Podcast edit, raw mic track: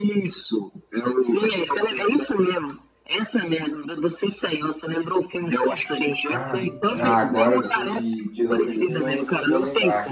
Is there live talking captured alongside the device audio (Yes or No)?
Yes